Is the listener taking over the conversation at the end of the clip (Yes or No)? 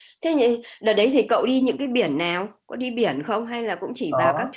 Yes